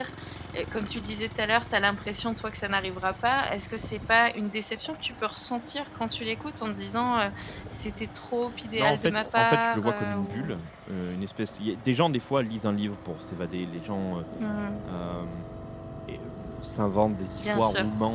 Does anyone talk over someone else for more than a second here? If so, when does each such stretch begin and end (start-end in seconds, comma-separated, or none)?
8.8-10.5